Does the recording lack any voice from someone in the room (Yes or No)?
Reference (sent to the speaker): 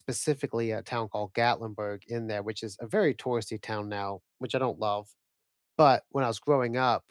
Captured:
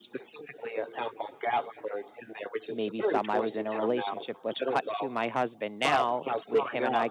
No